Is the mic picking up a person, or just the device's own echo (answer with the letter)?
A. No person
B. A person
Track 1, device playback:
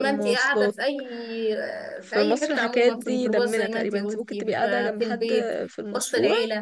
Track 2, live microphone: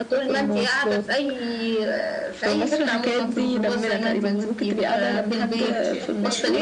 B